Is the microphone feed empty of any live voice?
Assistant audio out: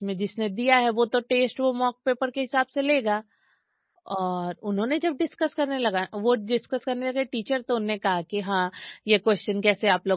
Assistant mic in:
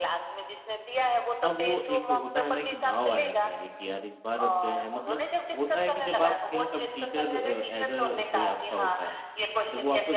No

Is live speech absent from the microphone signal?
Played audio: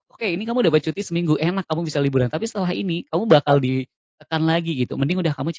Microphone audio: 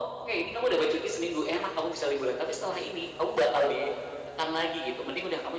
Yes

